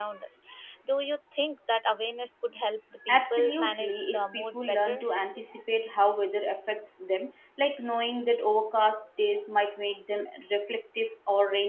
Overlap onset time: 3 s

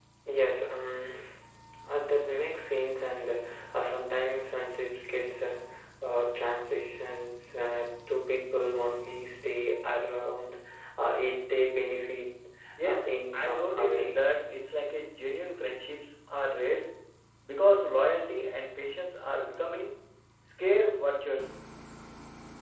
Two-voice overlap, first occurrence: 13 s

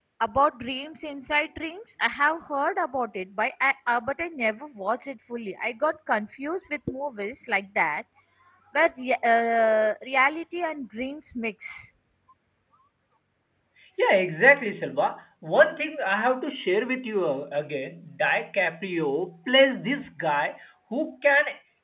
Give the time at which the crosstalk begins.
none

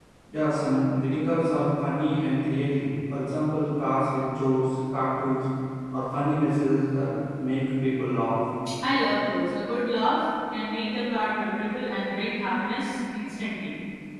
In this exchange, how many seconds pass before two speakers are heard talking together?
none

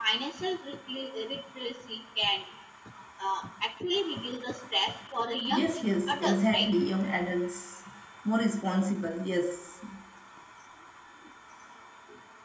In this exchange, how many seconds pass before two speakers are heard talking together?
5 s

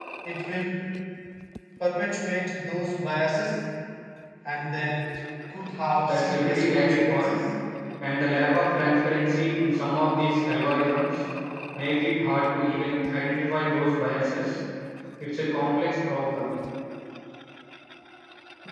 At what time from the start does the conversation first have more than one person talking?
6 s

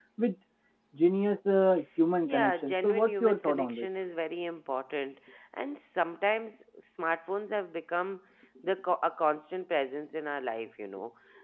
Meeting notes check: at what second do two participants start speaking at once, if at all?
2 s

